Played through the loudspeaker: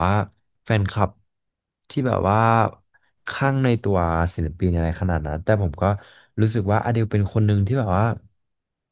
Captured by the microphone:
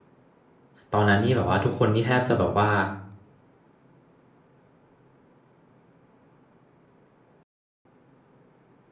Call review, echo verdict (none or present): none